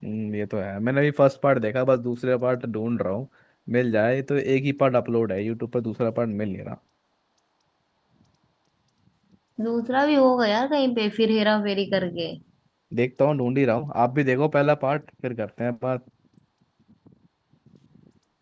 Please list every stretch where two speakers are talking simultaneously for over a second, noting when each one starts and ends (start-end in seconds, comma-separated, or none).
none